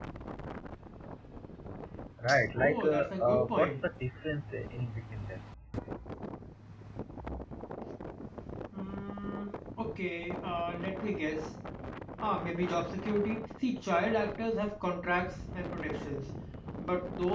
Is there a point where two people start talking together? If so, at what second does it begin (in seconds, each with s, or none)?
2.5 s